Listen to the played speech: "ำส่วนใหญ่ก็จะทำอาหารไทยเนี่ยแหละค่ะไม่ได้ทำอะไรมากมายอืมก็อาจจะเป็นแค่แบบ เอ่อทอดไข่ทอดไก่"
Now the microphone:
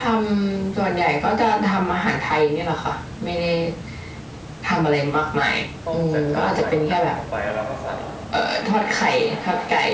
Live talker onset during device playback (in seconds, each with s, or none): 5.8 s